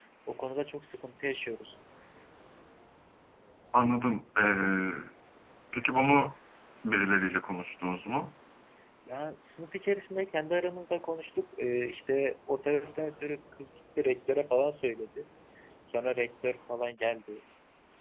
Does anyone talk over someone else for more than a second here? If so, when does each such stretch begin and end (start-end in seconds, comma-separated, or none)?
none